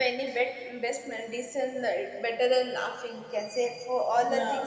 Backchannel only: Yes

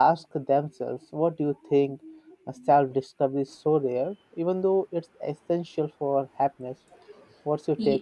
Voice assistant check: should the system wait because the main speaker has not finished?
No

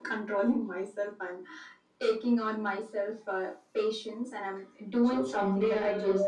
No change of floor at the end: No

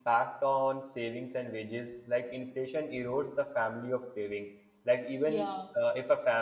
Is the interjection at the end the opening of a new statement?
No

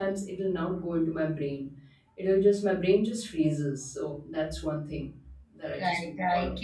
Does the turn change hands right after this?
Yes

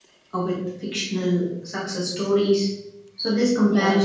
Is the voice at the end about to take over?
No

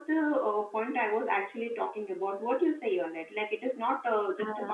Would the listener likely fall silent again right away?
Yes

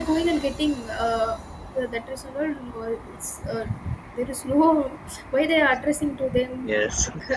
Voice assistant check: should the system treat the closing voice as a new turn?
No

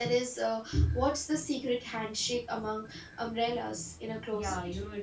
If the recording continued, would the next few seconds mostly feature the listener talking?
Yes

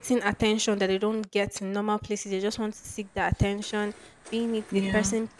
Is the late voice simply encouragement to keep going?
Yes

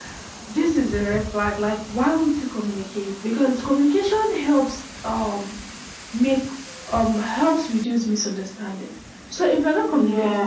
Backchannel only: Yes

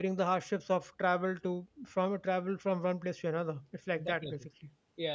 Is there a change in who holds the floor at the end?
Yes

